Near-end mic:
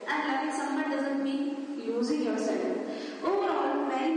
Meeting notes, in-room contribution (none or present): none